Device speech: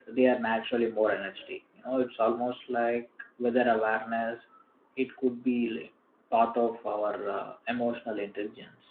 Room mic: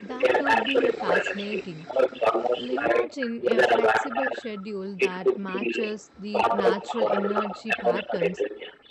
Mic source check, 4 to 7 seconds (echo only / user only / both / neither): both